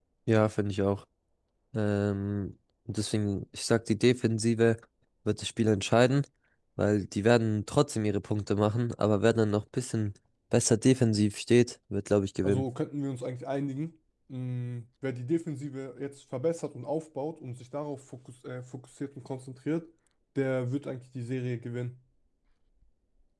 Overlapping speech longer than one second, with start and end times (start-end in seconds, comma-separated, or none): none